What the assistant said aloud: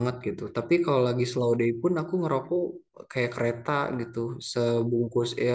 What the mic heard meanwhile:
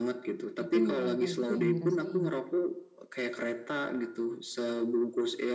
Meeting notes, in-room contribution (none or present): present